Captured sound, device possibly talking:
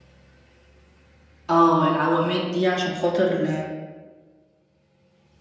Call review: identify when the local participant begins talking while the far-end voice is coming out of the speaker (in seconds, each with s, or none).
1.5 s